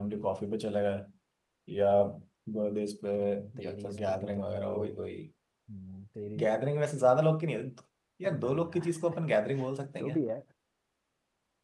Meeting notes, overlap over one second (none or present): present